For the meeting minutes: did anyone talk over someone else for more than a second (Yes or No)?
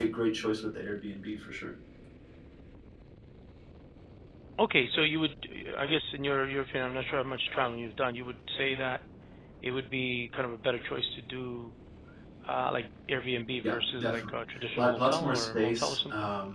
Yes